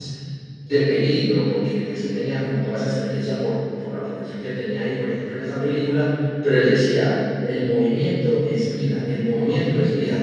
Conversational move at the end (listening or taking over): listening